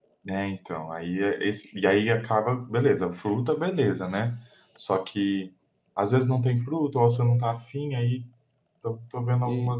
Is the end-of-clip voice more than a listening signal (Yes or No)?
No